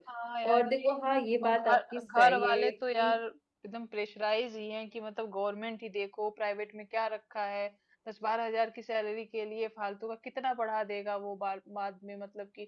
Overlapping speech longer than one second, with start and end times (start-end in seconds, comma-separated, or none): 1.4-3.1